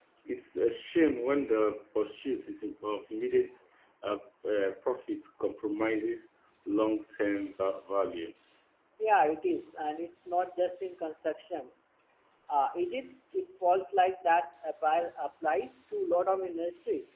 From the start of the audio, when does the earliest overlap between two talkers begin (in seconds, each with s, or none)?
none